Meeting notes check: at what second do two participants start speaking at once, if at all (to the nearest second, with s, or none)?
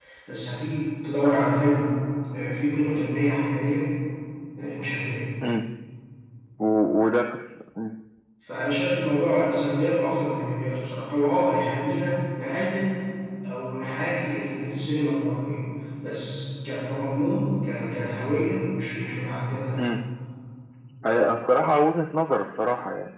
none